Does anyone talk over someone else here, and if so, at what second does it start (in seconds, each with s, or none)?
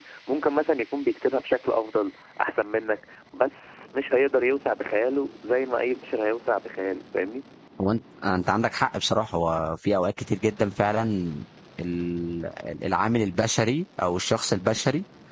none